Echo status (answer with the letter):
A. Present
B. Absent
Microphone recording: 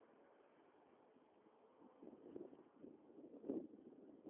B